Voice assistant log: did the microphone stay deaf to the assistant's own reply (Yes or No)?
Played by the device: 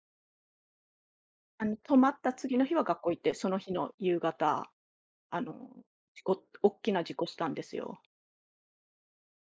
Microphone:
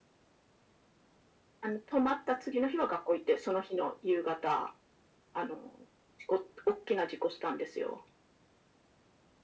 No